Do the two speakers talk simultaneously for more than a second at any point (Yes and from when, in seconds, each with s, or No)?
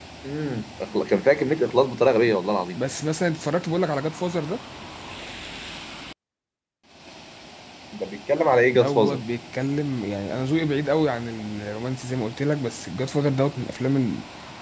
No